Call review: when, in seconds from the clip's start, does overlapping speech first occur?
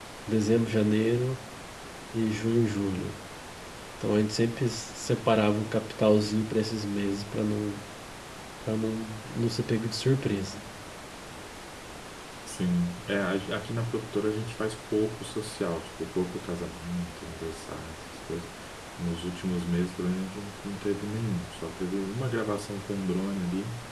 none

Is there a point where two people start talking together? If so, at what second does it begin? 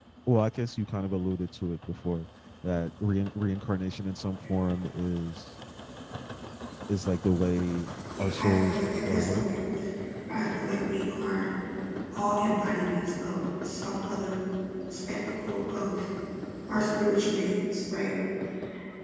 8 s

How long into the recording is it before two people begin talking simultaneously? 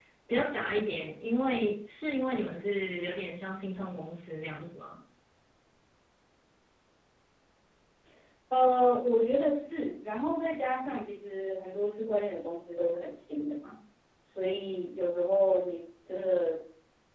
none

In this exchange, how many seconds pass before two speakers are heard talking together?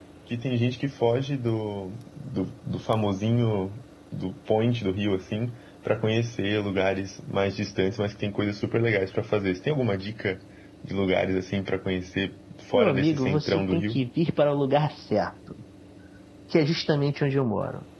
13 s

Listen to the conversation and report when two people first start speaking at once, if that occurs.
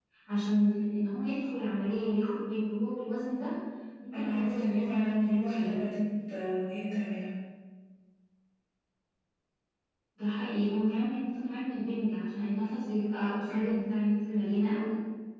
4 s

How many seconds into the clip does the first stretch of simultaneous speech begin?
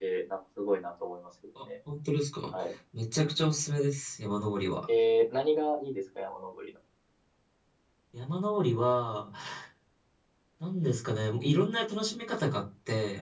none

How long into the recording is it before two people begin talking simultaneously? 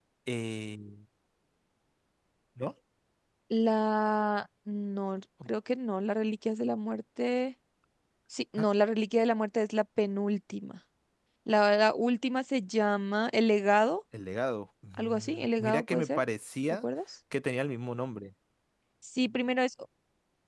15 s

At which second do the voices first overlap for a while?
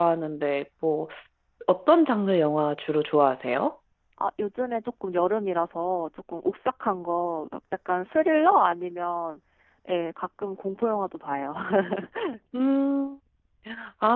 none

